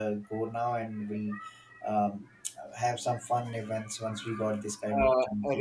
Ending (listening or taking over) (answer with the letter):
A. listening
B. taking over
B